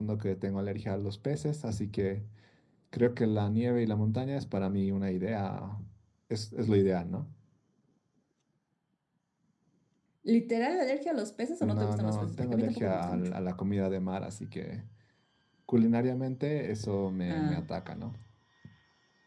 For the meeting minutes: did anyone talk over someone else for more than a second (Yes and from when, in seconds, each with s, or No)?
Yes, from 11.6 s